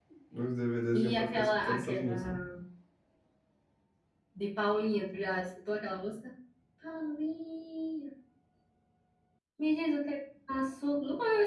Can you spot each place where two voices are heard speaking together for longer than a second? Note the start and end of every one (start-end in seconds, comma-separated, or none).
0.9-2.2